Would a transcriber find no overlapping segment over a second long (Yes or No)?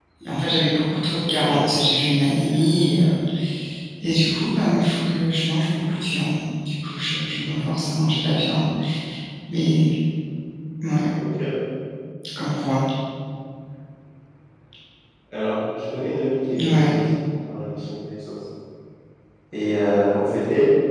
Yes